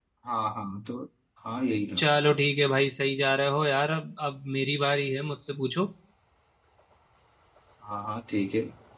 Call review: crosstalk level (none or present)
none